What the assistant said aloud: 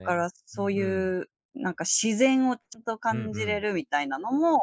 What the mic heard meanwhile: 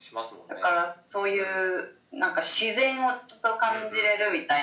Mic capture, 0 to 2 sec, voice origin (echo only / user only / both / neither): echo only